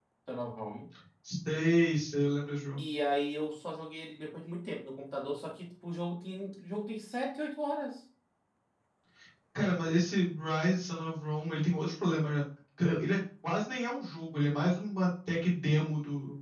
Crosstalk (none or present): none